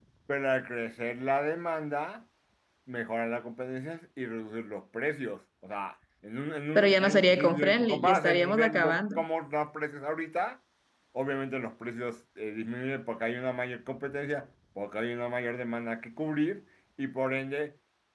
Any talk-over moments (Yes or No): Yes